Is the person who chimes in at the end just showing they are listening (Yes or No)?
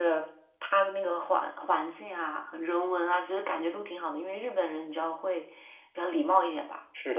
No